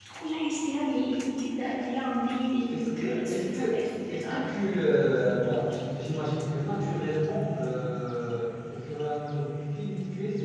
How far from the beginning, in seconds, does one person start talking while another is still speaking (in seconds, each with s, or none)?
2.7 s